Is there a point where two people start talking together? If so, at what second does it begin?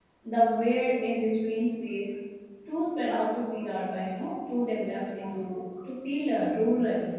none

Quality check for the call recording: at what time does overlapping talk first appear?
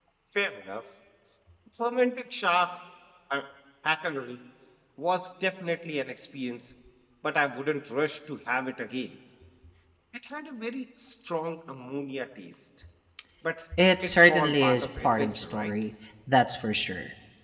14 s

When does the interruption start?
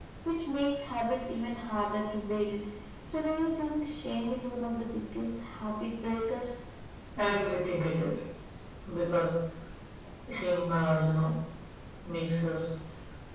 none

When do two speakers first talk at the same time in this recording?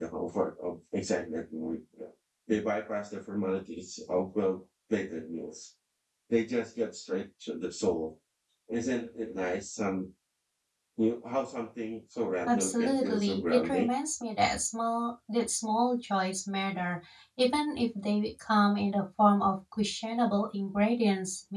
12 s

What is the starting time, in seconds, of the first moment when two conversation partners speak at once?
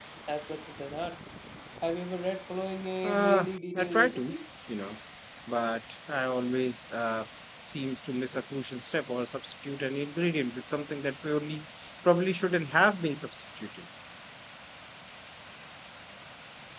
3 s

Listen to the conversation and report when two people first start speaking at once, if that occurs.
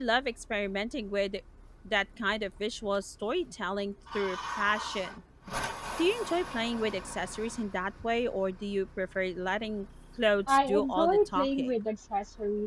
10 s

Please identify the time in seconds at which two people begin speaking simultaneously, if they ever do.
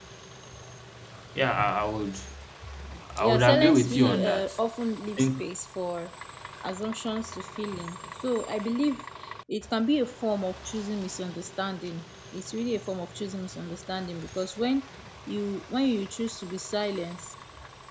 3 s

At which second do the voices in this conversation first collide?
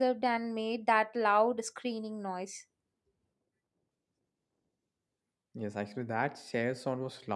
none

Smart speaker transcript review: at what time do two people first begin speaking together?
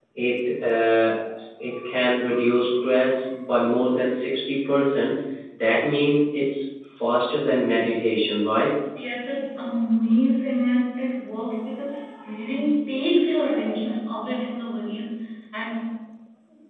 none

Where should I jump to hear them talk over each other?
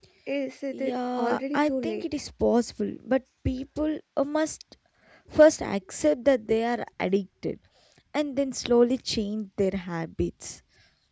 1 s

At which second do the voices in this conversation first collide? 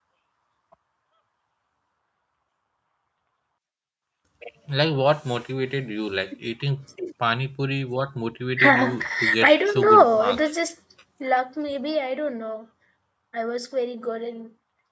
9 s

